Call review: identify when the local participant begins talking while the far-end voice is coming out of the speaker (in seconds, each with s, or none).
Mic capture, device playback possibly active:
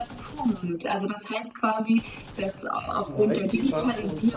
3.0 s